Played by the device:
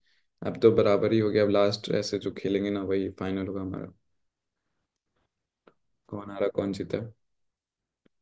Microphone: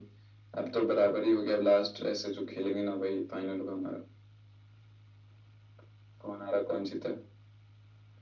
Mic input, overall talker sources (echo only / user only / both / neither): echo only